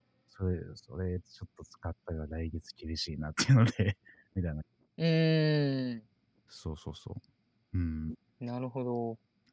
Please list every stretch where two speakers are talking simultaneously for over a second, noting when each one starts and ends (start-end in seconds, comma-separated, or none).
none